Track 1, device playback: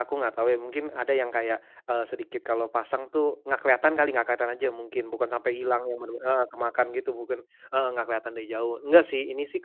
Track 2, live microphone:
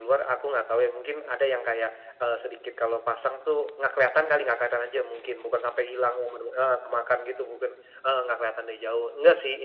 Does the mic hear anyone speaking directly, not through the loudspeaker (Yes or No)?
No